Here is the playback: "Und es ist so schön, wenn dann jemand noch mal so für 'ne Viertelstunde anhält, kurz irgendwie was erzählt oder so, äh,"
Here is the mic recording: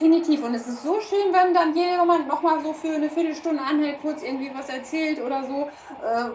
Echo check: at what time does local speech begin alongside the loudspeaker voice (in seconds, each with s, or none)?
none